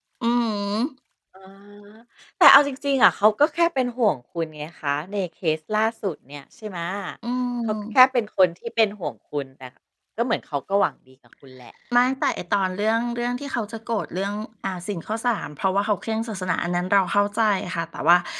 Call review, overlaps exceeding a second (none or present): none